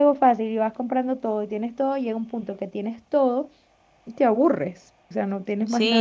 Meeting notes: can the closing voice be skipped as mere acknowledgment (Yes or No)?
No